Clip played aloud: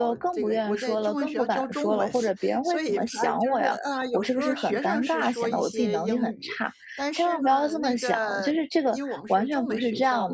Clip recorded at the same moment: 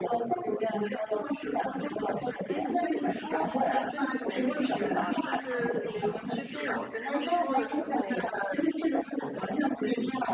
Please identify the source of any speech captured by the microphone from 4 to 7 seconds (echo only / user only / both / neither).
both